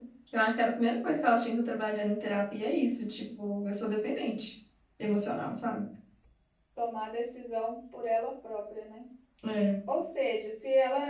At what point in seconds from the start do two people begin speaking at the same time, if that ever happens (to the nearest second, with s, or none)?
none